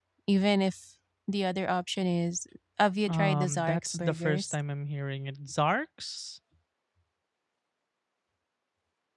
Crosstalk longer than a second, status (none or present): present